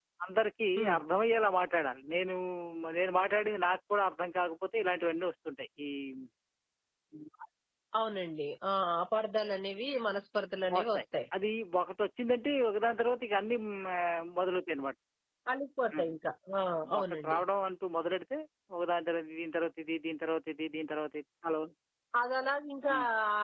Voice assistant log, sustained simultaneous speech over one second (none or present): none